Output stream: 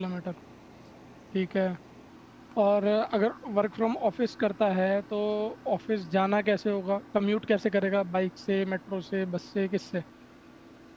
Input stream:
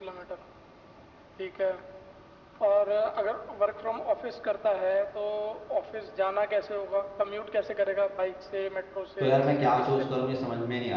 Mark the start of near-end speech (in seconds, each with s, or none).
9.2 s